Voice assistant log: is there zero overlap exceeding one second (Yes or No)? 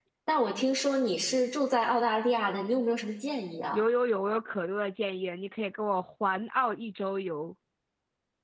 Yes